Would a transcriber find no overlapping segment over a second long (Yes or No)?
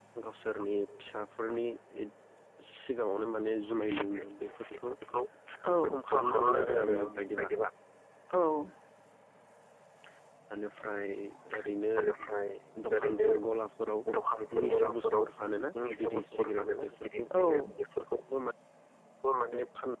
No